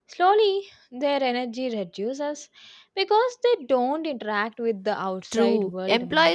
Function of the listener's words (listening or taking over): taking over